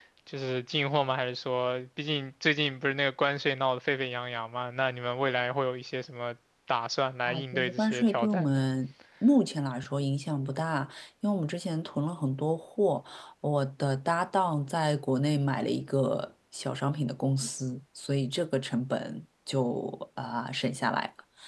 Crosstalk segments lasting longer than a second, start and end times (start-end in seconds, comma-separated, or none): 7.3-8.6